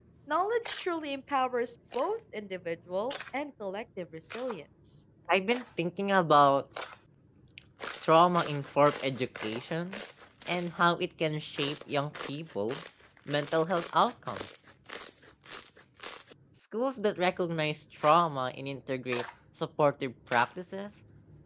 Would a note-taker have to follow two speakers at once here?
No

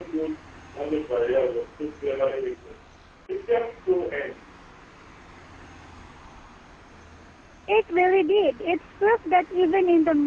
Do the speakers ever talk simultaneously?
No

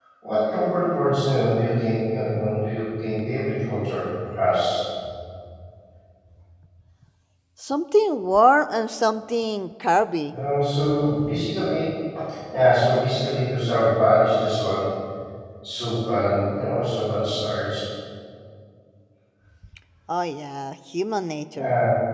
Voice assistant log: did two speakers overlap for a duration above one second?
No

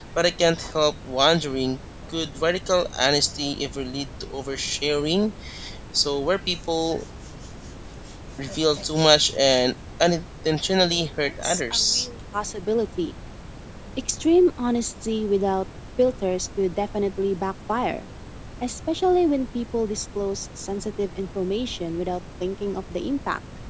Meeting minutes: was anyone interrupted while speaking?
Yes, from 10.8 s

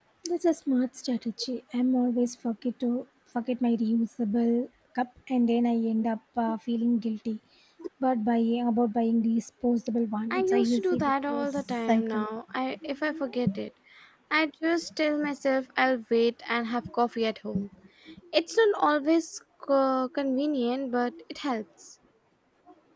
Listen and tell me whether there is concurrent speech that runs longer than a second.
Yes, from 10.3 s

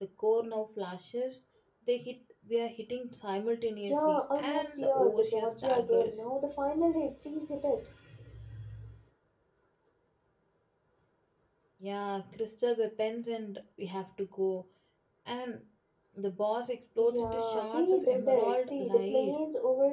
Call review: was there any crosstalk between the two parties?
Yes, from 3.9 s

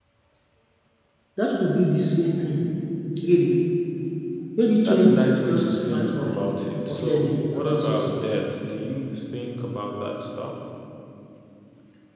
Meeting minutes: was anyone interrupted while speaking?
Yes, from 4.8 s

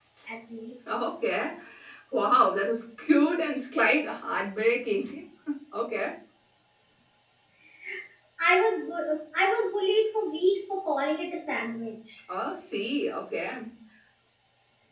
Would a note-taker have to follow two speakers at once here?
No

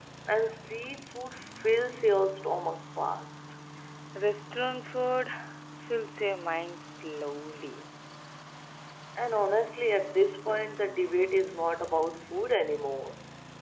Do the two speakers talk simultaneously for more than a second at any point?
No

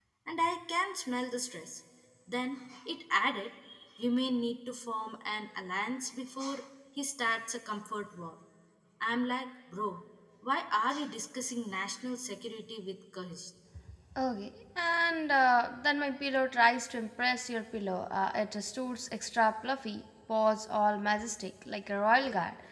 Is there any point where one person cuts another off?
No

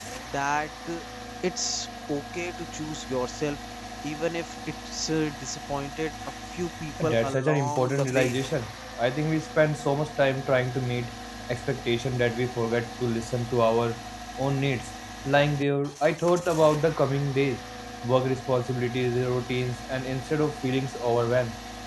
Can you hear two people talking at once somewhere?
Yes, from 7.0 s

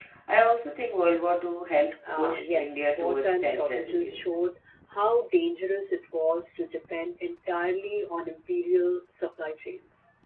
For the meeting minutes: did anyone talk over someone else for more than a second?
Yes, from 2.0 s

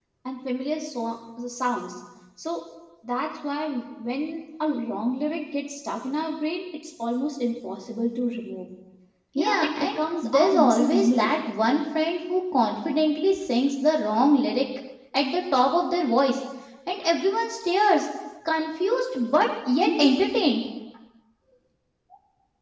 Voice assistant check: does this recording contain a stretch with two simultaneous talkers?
Yes, from 9.4 s

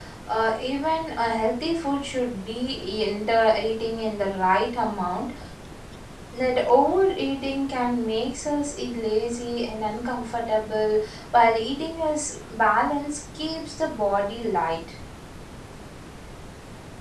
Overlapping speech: No

